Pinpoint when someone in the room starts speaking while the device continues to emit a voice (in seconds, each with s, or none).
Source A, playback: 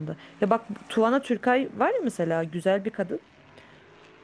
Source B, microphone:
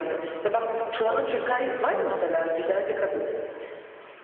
0.5 s